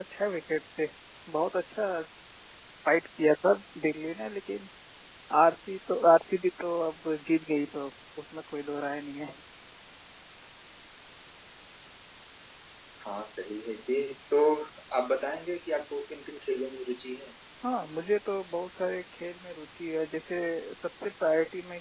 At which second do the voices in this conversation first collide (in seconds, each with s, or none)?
none